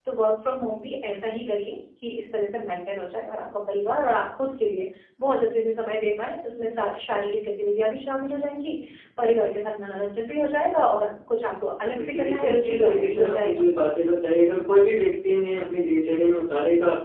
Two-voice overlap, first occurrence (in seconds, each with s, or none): 11.9 s